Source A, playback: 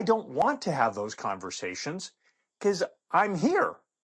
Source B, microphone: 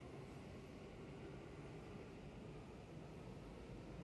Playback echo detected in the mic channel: No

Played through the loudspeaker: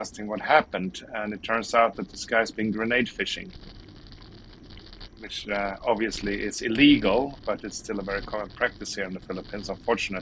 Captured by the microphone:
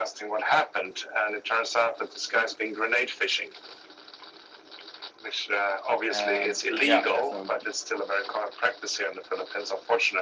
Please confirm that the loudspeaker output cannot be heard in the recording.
No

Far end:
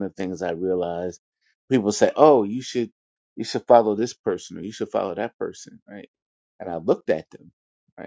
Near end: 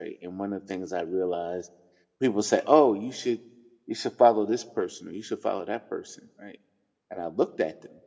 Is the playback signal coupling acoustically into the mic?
Yes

